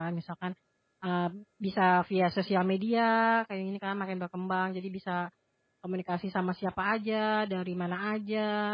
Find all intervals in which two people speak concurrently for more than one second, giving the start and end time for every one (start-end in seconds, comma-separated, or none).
none